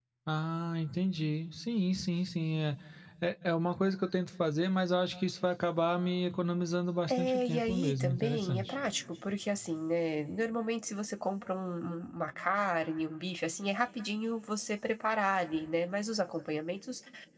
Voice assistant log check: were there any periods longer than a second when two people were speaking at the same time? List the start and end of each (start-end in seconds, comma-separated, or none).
7.1-8.7